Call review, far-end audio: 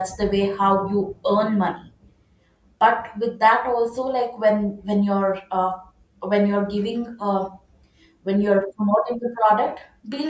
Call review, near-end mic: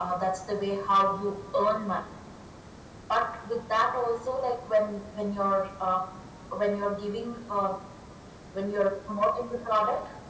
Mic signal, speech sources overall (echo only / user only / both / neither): echo only